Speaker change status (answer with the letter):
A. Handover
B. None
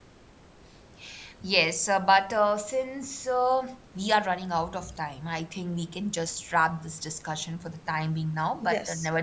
B